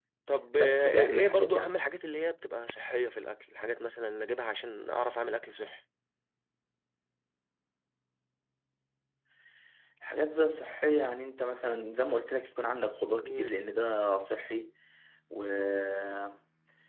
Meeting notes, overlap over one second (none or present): present